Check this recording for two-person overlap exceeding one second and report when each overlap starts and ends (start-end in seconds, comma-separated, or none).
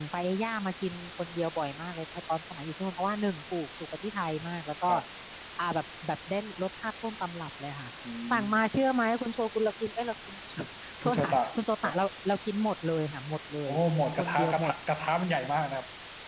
none